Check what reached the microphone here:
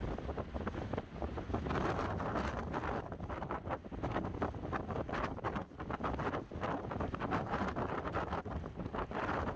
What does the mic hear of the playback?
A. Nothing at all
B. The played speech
A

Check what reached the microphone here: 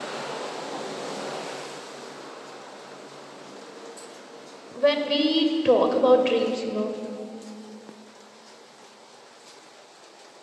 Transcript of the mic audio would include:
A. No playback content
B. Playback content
A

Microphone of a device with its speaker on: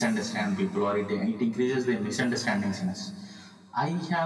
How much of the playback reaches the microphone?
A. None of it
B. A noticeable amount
B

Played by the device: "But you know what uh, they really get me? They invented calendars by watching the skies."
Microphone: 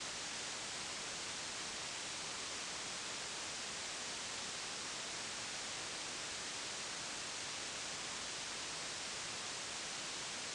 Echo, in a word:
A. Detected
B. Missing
B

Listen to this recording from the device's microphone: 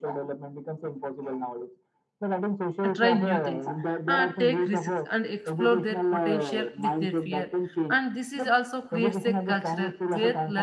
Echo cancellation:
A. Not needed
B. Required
B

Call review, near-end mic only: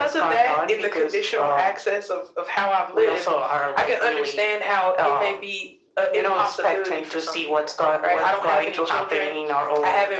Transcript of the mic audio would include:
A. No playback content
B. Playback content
B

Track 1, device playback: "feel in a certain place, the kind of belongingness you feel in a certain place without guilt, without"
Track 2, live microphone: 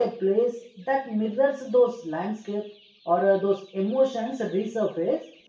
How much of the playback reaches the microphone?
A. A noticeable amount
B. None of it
B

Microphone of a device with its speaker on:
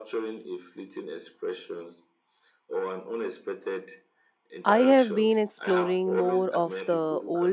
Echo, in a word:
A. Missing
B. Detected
B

